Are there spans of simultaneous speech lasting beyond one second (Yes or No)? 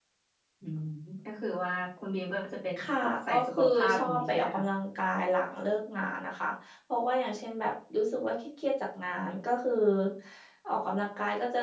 Yes